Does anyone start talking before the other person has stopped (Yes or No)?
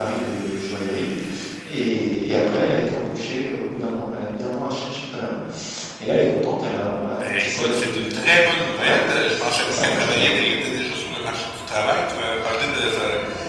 Yes